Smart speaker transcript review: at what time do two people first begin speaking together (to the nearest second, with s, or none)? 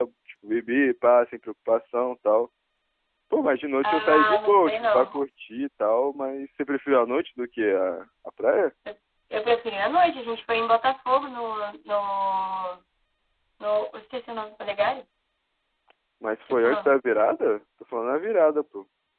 4 s